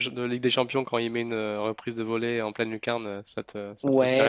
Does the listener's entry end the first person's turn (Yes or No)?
Yes